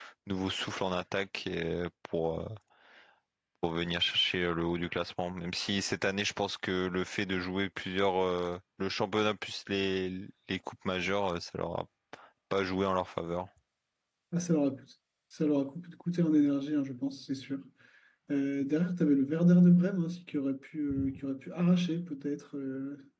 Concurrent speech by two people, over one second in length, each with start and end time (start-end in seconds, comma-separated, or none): none